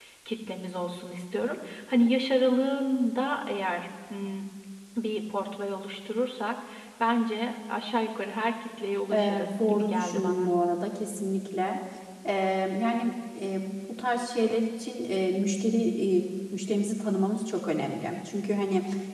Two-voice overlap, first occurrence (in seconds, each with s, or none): 9.1 s